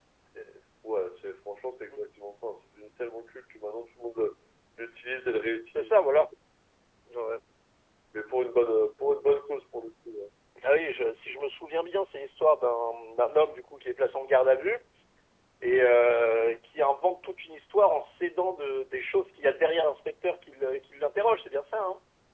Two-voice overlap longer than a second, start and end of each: none

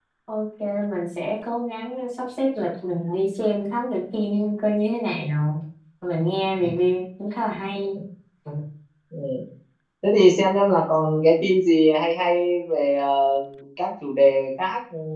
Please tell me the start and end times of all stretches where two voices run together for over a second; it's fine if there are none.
none

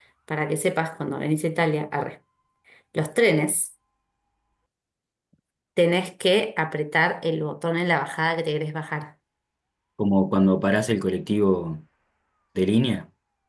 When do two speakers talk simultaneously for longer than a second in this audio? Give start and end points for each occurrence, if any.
none

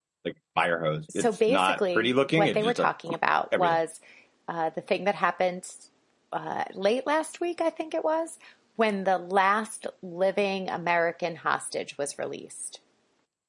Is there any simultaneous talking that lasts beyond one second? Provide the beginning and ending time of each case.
1.1-2.9

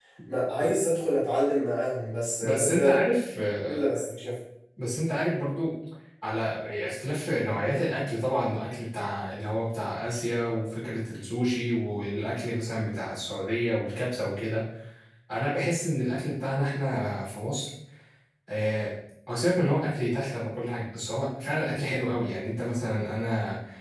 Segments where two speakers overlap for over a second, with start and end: none

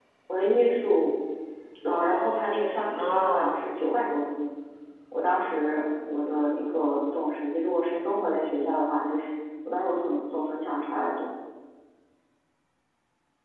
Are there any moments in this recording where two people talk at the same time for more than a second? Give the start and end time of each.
1.9-3.5

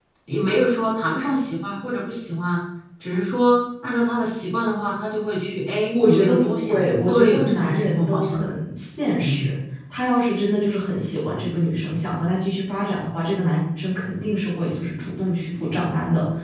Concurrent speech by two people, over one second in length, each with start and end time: 5.9-8.6

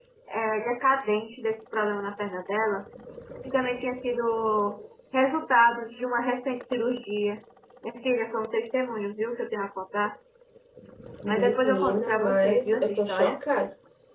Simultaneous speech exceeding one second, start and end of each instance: 11.3-13.4

